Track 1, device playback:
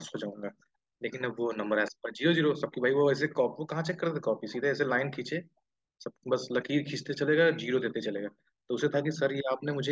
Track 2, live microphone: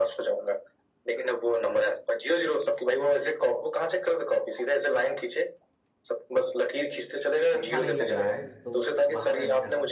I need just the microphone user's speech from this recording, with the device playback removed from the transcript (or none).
अच्छा नहीं लग रहा है तो बाहर रहने का